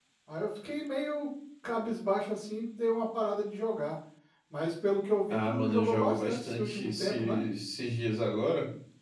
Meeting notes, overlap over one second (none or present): present